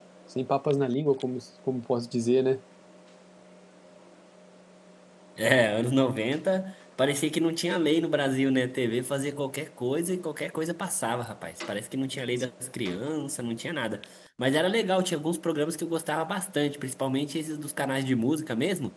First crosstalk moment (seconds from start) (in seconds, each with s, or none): none